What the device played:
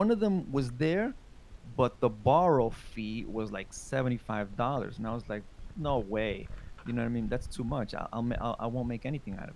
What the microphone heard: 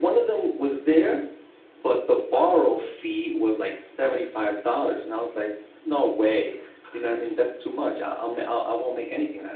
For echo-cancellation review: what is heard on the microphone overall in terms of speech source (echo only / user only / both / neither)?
echo only